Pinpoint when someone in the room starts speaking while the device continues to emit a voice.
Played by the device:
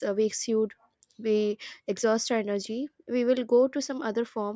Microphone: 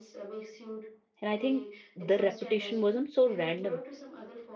1.2 s

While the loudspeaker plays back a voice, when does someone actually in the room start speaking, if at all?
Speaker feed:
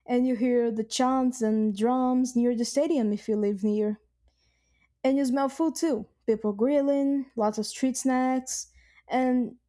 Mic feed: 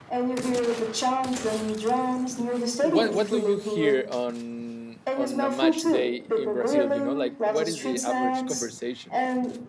2.8 s

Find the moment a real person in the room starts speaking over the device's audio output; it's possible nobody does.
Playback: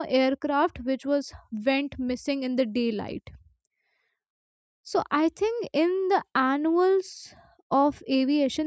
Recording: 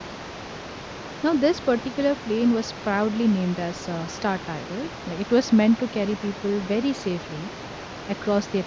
1.2 s

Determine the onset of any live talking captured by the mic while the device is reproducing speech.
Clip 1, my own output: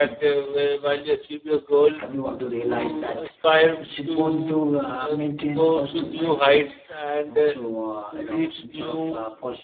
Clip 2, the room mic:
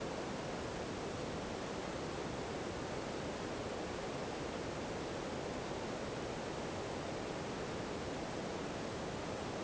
none

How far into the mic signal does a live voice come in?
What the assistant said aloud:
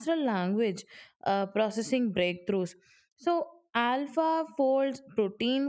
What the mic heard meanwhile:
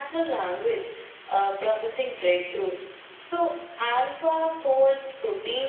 none

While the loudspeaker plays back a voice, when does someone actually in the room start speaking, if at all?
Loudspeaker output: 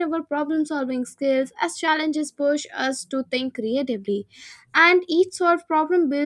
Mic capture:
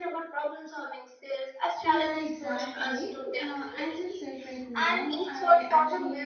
1.8 s

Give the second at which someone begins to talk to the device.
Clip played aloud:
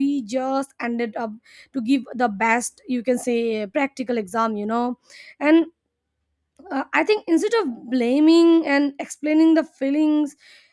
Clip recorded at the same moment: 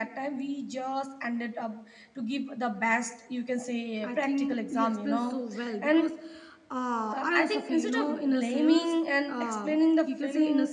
4.0 s

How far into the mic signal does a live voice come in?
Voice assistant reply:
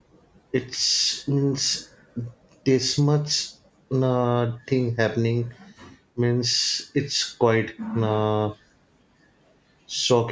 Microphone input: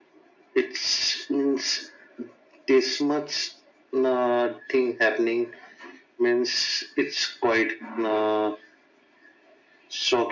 none

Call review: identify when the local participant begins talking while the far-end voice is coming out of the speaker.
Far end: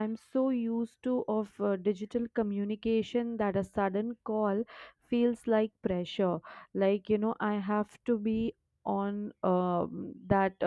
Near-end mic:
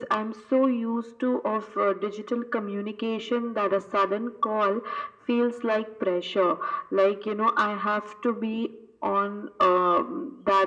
none

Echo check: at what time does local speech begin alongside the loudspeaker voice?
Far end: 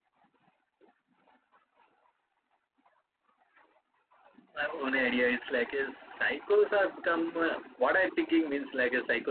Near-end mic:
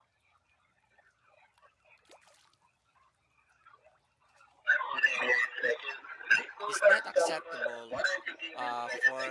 6.7 s

